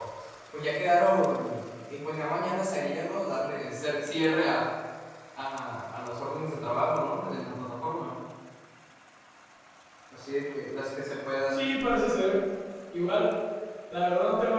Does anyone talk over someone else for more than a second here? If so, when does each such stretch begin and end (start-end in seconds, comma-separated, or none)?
none